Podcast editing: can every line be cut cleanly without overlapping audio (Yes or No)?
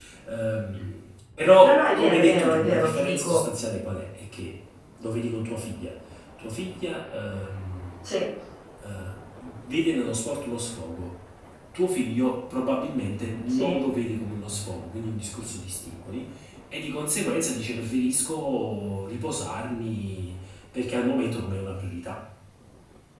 No